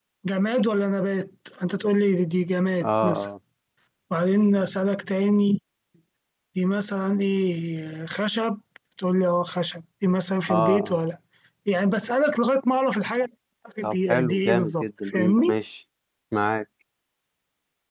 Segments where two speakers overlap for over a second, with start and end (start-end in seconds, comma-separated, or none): 13.8-15.6